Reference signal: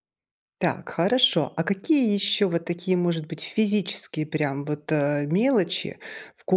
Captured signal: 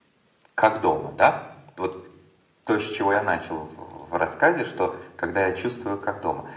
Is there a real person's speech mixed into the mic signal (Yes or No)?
Yes